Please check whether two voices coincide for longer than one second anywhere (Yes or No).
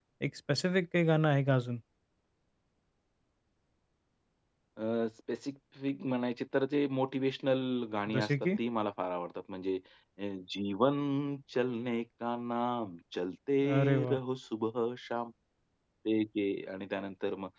No